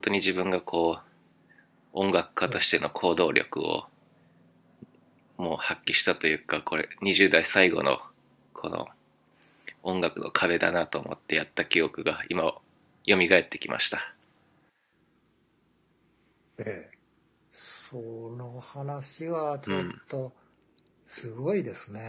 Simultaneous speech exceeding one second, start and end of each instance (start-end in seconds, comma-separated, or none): none